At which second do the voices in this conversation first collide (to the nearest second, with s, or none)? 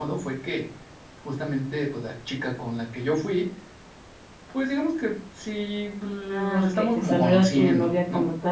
6 s